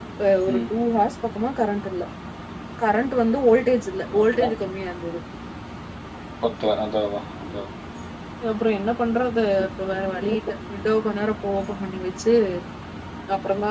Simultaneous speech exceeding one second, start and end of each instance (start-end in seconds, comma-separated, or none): none